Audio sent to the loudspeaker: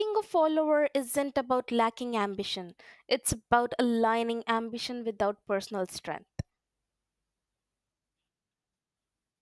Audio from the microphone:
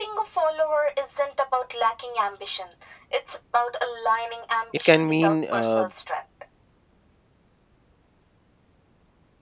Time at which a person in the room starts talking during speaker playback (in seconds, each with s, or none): 4.7 s